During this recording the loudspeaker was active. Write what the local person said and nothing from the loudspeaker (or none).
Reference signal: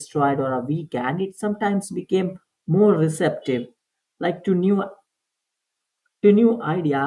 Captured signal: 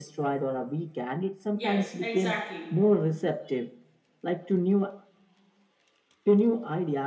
Yes, exactly.